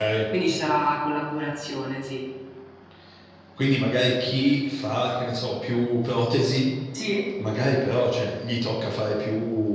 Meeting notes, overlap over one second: none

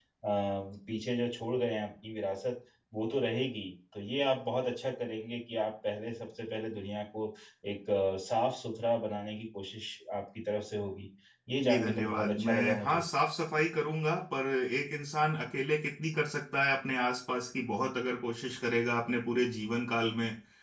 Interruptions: present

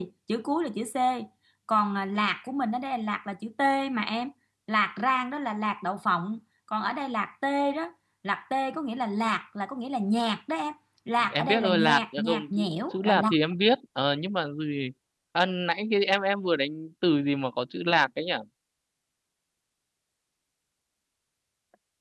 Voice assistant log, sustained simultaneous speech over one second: present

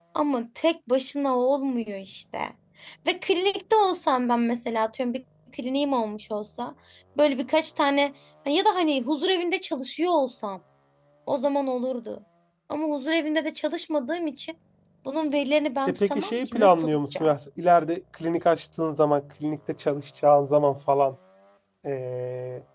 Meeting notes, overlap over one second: present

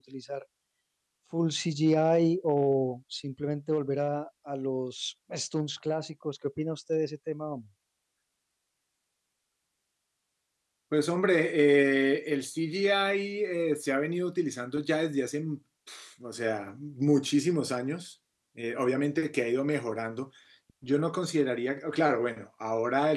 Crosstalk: none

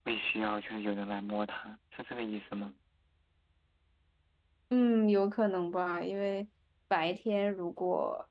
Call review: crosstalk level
none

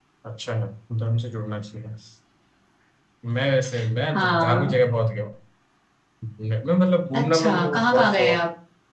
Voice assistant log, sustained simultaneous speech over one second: present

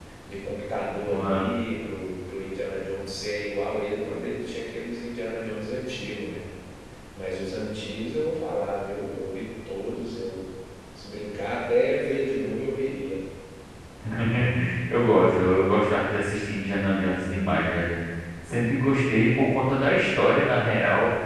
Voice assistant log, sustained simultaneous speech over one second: none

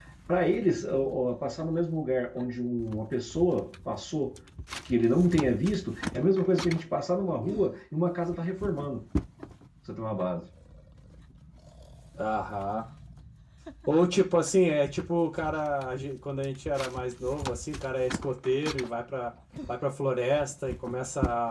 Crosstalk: none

